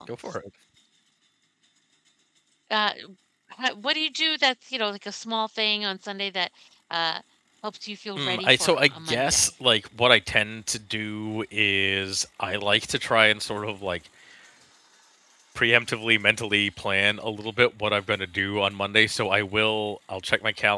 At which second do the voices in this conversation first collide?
8.2 s

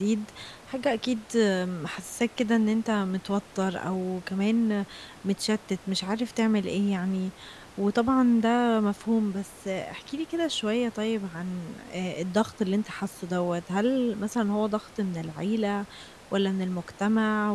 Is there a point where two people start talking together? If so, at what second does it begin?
none

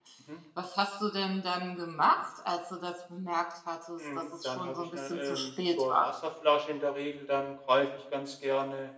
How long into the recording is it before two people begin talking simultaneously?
4.0 s

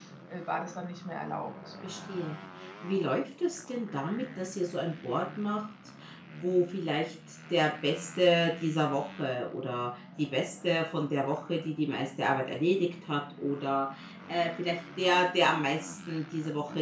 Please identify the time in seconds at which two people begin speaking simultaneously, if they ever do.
none

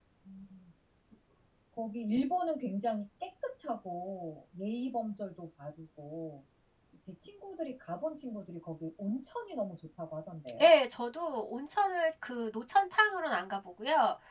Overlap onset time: none

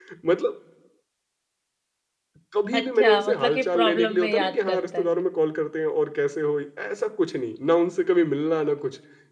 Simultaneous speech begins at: 2.7 s

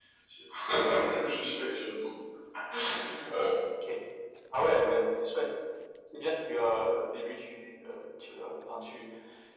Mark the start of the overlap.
none

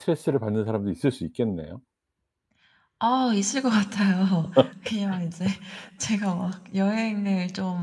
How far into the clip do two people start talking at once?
none

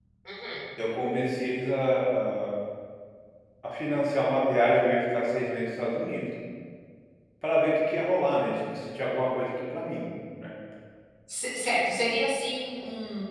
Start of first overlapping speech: none

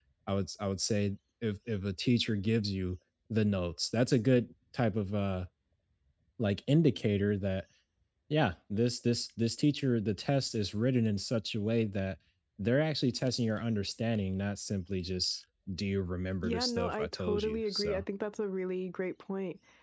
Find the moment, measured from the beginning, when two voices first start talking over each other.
16.4 s

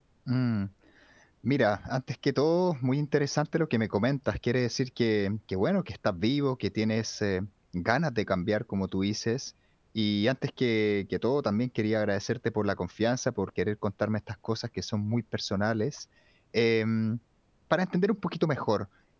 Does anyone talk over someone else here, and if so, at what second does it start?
none

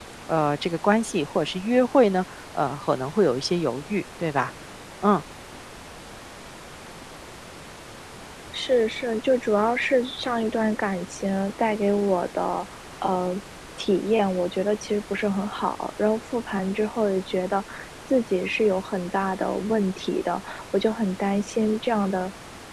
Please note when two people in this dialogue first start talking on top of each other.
none

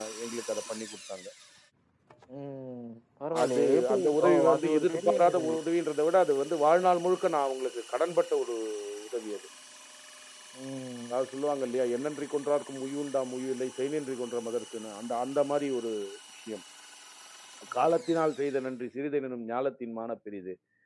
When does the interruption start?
3.4 s

